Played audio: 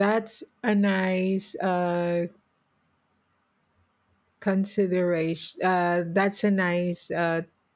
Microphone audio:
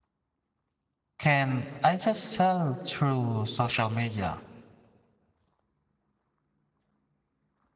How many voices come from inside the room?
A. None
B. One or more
B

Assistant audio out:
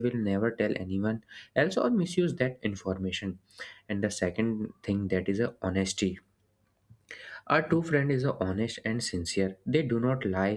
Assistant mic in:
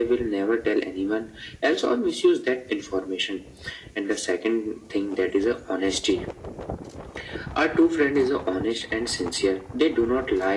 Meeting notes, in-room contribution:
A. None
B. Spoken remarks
A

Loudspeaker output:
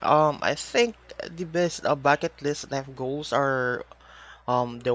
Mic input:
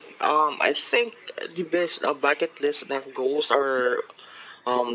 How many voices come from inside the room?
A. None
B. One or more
A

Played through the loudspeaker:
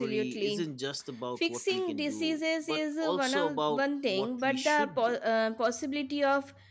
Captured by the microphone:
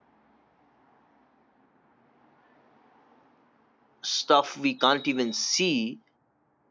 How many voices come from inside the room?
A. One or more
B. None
A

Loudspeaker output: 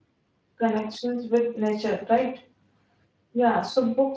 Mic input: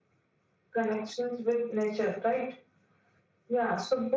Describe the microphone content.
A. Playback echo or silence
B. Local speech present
A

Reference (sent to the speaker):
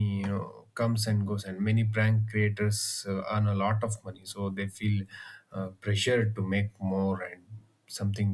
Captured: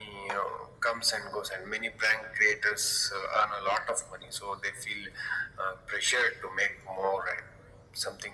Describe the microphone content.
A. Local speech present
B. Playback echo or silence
B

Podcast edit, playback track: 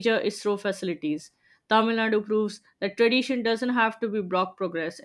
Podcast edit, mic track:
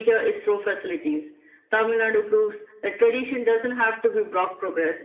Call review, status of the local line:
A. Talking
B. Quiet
B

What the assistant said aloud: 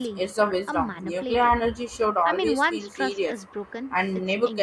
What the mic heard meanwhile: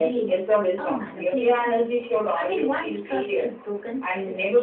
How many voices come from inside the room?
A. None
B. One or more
A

